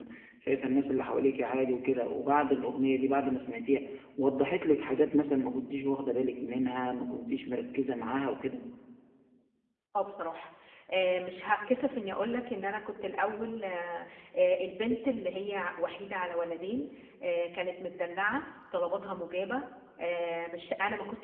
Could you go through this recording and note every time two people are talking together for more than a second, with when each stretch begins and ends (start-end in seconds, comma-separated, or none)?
none